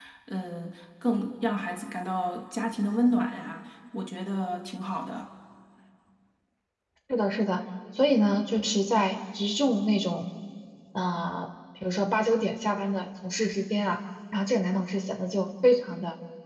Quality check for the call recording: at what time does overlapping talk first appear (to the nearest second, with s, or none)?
none